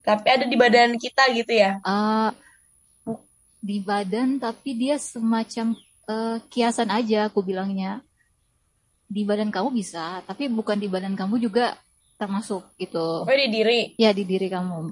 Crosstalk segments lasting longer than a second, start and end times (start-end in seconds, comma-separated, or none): none